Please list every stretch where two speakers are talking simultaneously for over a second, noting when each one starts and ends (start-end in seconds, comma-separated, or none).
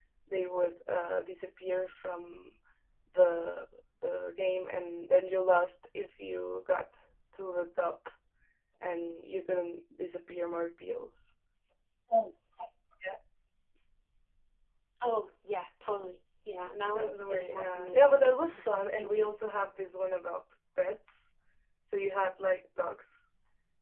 16.9-18.2